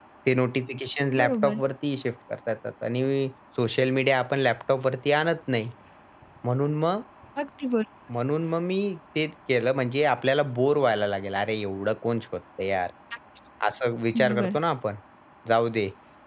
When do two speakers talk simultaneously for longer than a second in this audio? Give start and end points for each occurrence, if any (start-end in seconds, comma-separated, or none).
none